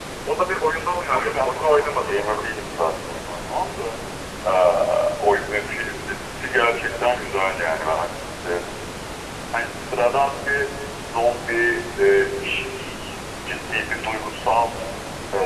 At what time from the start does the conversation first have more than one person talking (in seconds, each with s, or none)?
1.1 s